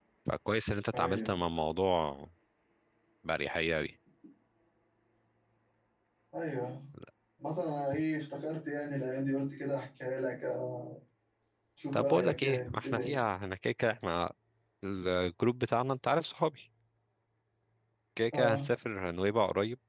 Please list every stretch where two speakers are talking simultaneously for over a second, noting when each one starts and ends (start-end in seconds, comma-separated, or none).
11.9-13.2